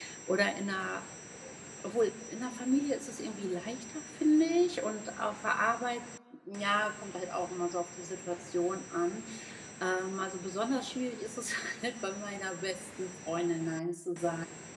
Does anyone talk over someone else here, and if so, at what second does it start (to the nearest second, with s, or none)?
none